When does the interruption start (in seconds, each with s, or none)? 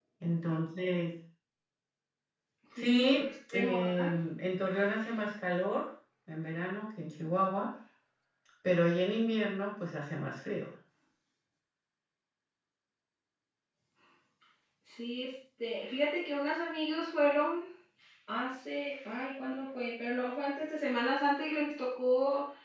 2.8 s